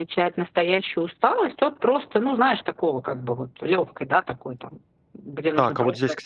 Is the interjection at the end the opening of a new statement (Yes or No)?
Yes